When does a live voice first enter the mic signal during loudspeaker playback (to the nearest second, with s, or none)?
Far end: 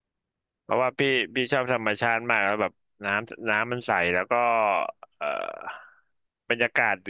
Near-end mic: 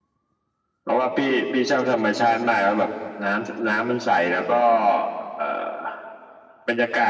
none